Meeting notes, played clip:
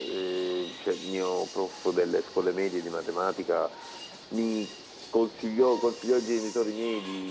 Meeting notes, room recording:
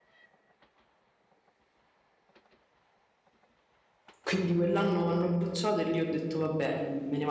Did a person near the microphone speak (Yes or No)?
Yes